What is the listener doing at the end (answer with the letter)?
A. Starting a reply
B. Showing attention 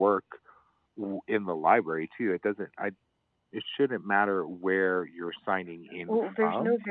A